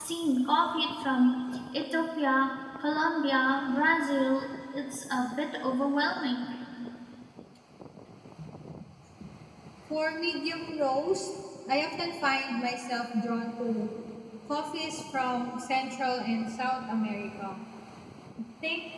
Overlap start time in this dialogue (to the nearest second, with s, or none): none